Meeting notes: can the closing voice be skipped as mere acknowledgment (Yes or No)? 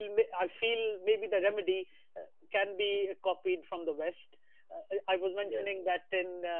Yes